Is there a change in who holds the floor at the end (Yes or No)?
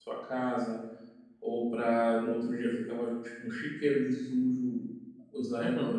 No